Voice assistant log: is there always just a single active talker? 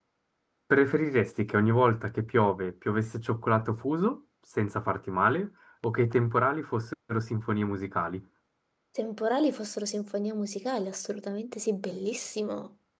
Yes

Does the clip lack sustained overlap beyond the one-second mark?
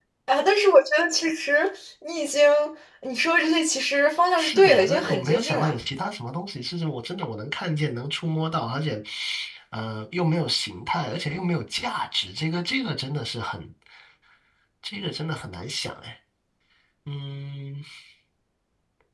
No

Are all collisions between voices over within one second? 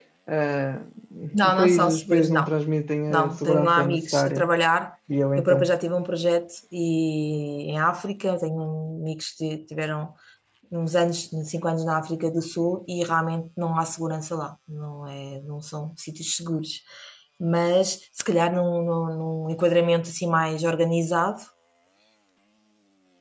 No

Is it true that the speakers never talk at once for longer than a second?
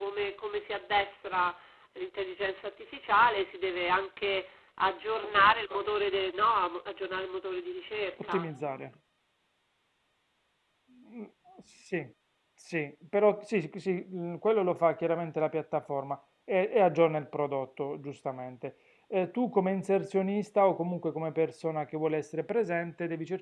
Yes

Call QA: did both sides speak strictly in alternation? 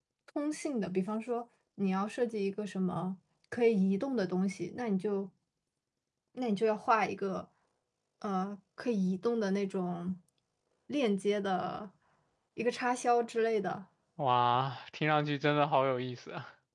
Yes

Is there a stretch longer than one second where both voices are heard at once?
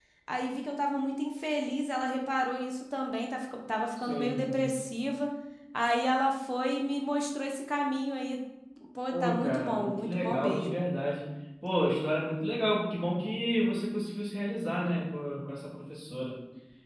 Yes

